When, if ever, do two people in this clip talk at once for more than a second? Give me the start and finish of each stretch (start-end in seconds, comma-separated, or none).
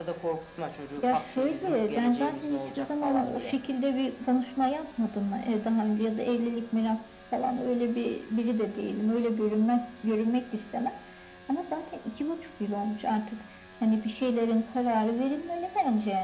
1.1-3.5